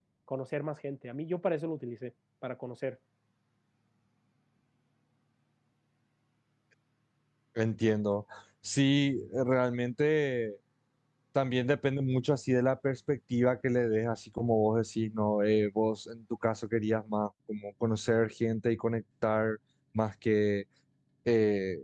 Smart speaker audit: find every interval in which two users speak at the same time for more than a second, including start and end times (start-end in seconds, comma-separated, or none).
none